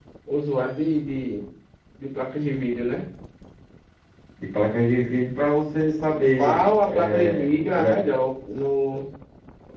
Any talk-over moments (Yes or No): Yes